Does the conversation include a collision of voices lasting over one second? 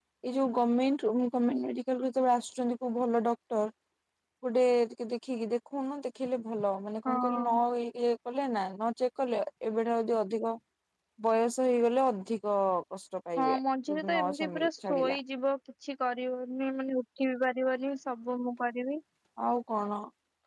Yes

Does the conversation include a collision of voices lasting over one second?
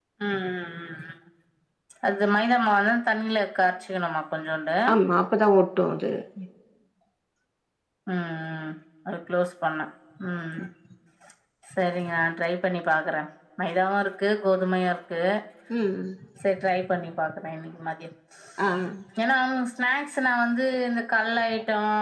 No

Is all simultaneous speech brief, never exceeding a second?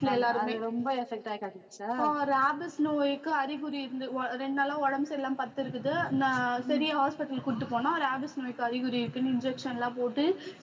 Yes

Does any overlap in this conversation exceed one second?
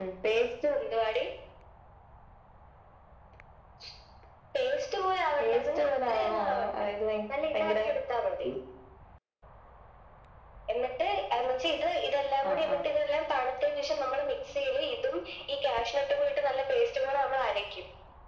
Yes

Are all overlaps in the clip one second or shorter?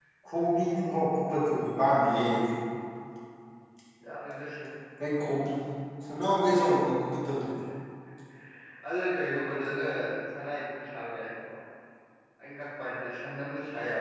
Yes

